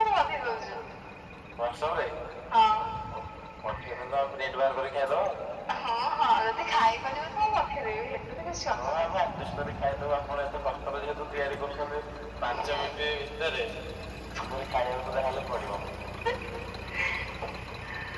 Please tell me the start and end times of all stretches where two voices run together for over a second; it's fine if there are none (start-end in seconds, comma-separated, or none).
none